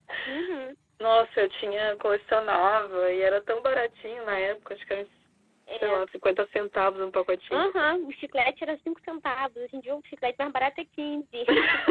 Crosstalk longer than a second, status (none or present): none